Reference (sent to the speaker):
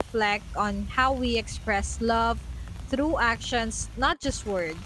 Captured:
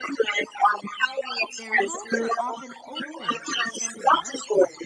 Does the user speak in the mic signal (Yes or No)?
Yes